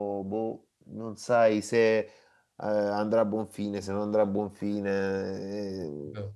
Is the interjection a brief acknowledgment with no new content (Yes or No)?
Yes